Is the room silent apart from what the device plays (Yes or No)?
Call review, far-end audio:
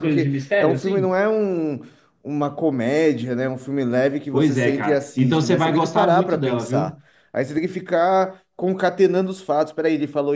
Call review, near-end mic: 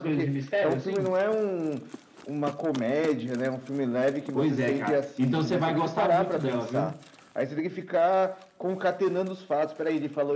Yes